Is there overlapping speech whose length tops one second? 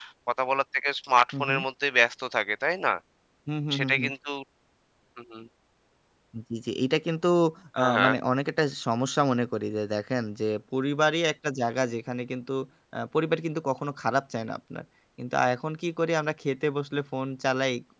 No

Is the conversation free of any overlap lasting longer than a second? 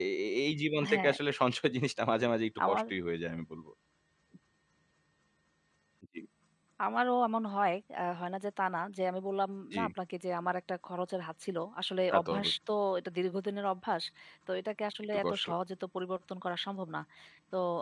Yes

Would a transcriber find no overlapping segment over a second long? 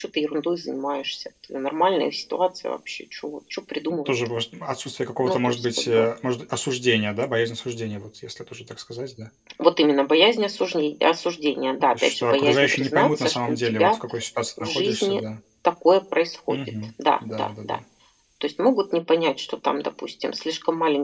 No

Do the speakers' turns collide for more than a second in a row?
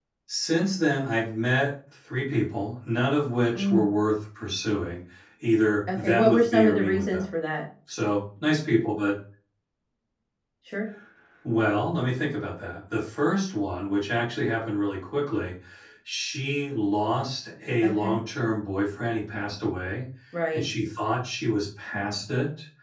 Yes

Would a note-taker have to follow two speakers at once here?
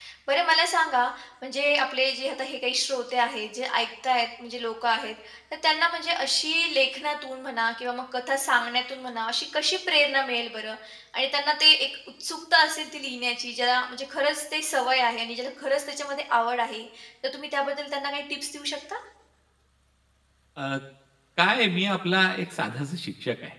No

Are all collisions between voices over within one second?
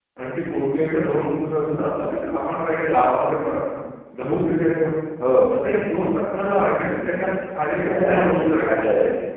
No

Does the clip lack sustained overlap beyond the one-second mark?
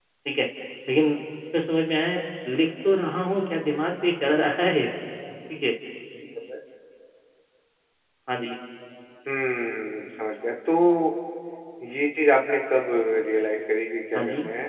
Yes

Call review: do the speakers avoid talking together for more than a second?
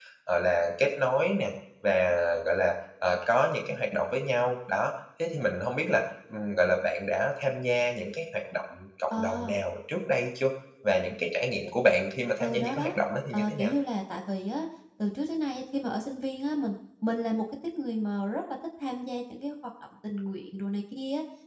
Yes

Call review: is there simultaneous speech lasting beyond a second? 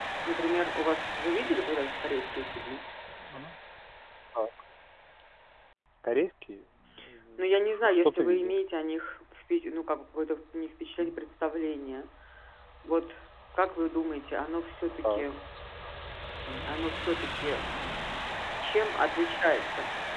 Yes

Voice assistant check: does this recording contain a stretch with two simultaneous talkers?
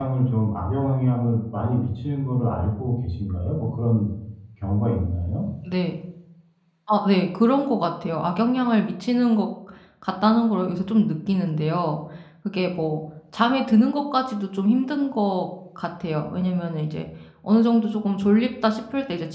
No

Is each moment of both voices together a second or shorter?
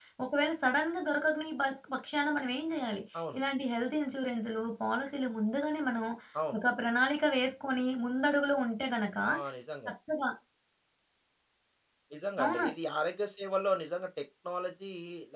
Yes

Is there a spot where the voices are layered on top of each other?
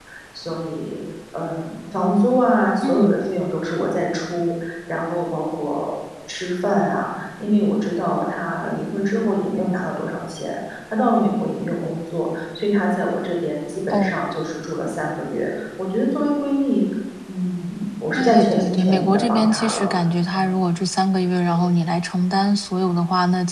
Yes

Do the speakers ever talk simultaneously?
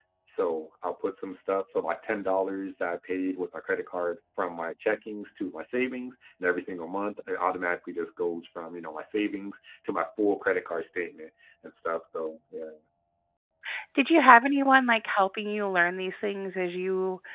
No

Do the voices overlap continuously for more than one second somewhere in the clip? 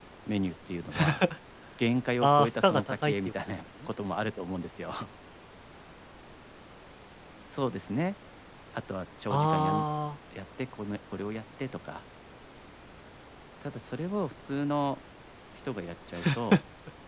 Yes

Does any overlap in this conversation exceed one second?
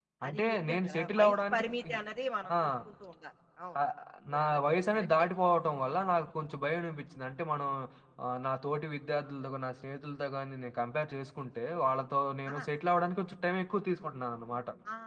Yes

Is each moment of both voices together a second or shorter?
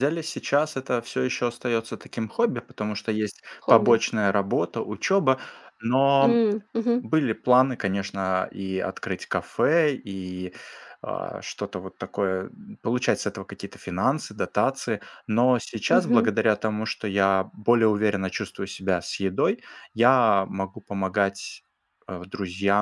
Yes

